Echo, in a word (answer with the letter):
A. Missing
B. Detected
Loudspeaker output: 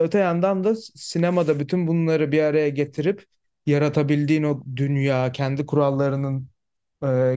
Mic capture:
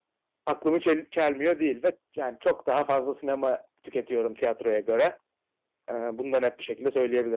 A